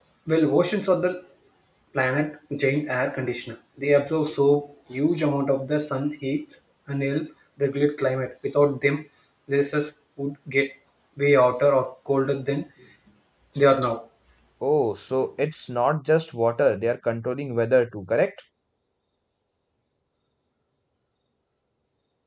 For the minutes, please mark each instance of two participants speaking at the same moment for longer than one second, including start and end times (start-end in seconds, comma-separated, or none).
none